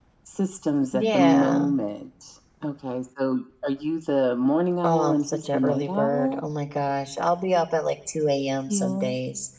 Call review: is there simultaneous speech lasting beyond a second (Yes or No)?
Yes